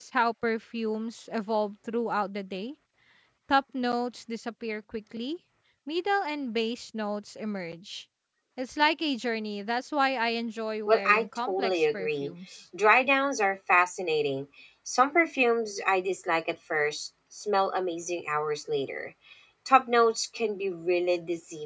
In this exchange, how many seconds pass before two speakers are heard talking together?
10.9 s

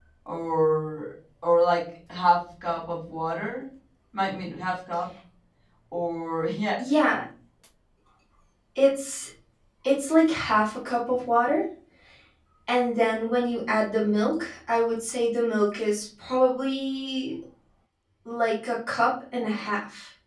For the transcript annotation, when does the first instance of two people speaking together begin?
none

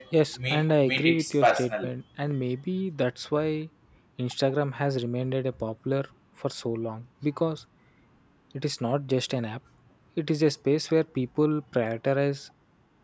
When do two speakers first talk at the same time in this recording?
0.5 s

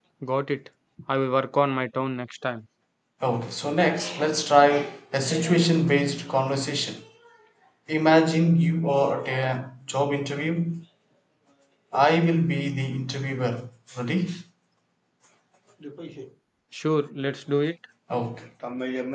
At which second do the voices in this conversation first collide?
none

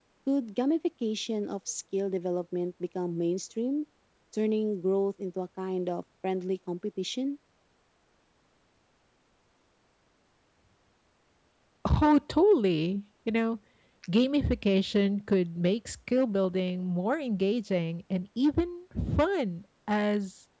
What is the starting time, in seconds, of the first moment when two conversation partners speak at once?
none

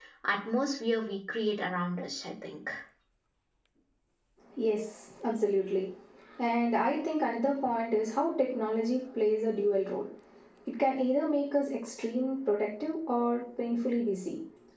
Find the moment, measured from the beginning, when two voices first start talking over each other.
none

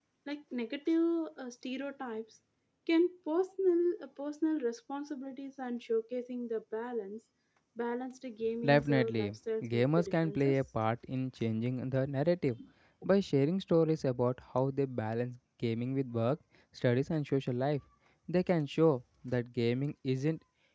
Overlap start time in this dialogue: 8.6 s

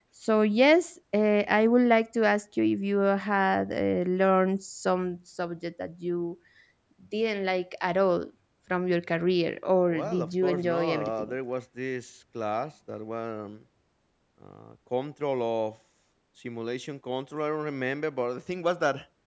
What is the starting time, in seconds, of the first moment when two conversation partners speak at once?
9.9 s

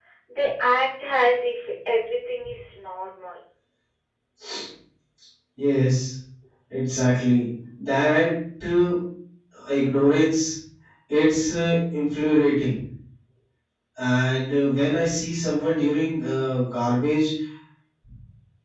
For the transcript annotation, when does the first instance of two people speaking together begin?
none

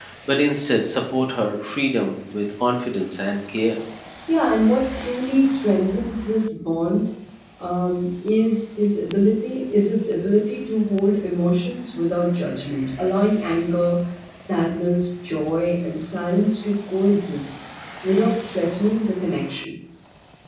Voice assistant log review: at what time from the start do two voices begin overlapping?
none

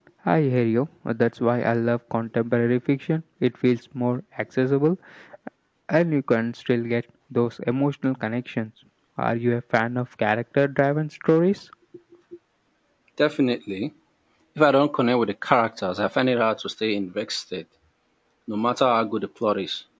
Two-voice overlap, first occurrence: none

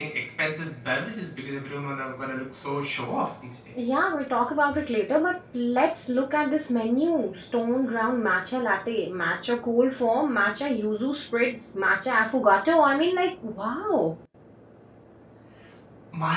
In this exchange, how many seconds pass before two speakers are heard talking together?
none

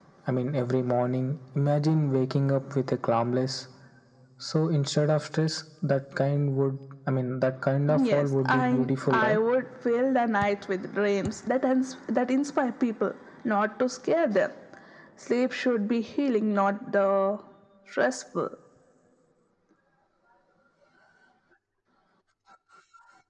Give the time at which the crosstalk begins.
7.9 s

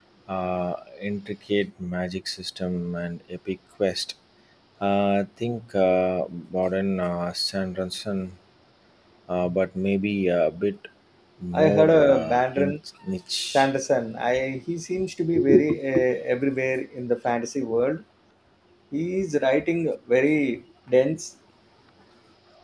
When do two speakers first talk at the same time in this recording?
11.5 s

